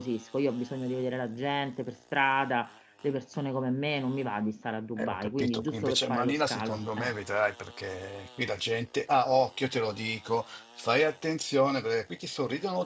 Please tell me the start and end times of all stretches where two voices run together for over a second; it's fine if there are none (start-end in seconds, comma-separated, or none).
5.0-7.1